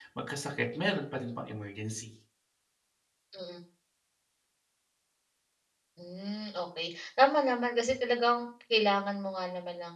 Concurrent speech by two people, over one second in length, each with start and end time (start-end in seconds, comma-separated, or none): none